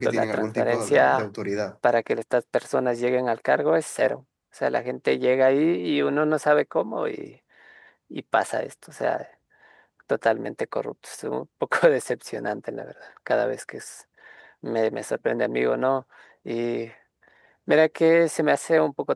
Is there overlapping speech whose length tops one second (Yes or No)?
Yes